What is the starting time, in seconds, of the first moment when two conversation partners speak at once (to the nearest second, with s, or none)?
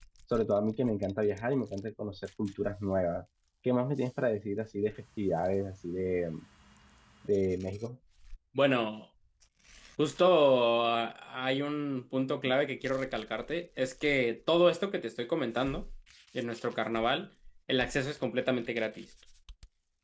none